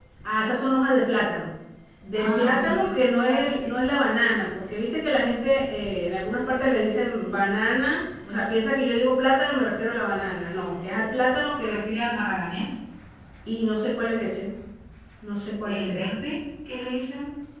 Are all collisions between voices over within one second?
No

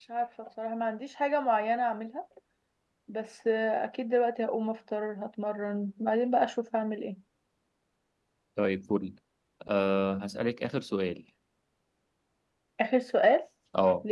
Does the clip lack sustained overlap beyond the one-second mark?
Yes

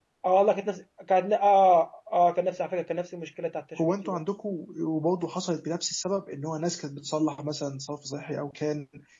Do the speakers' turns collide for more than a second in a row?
No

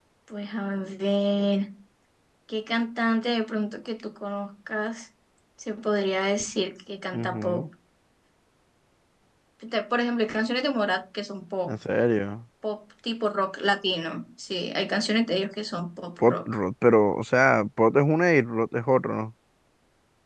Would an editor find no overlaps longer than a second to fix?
Yes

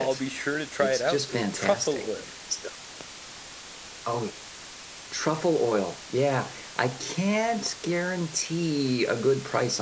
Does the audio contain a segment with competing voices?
Yes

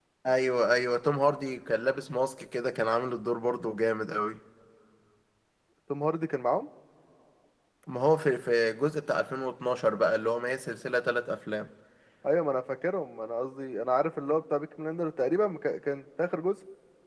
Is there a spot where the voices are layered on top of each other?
No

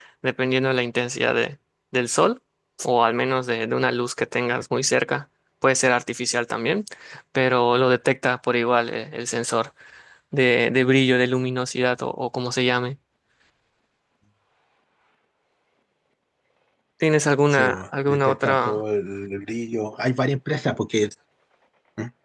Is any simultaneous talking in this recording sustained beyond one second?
Yes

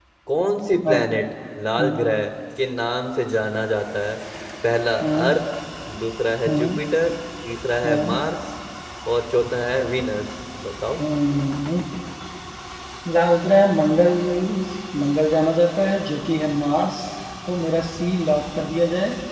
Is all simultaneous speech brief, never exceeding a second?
Yes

